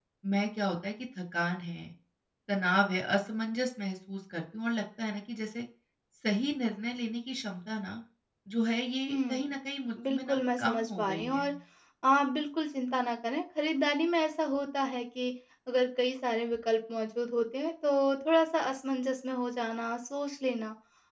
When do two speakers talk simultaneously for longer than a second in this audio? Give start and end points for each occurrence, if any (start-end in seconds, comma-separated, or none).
10.1-11.4